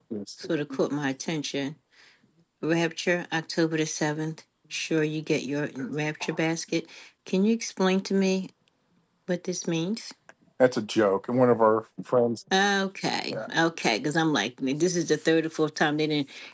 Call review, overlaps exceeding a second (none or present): none